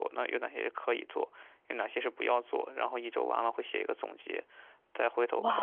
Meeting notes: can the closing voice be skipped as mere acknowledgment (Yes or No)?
No